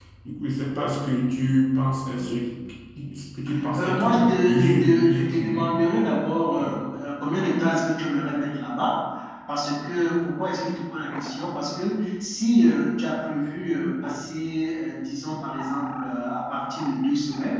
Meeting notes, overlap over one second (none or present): present